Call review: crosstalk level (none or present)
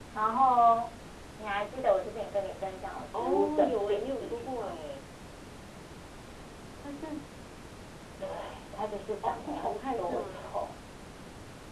present